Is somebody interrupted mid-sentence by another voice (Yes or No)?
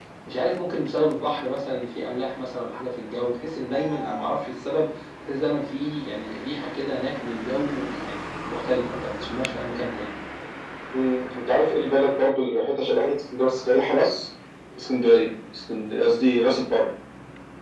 No